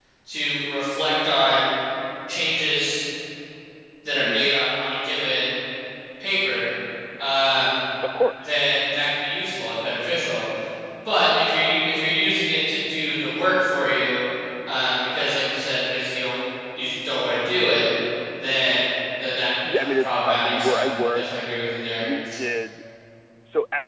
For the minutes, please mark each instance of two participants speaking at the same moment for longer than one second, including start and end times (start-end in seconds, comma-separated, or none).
19.7-21.2